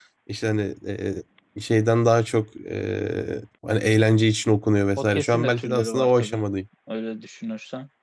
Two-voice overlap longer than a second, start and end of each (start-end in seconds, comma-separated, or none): 5.0-6.4